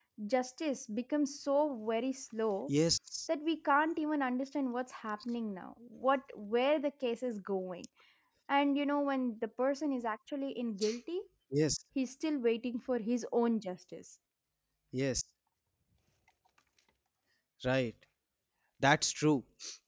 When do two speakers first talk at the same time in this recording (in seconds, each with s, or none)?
none